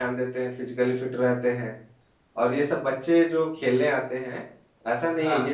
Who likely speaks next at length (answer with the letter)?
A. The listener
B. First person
B